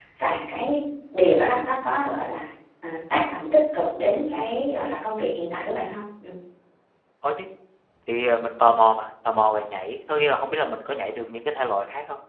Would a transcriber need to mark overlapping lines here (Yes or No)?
No